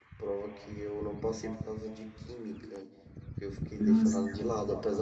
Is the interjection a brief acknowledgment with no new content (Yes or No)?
Yes